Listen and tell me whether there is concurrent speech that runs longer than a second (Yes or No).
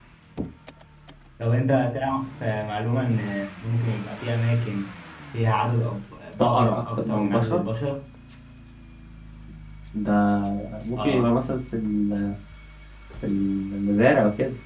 Yes